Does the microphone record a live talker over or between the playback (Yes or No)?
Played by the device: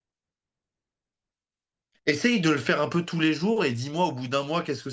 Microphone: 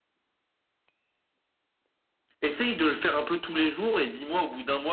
No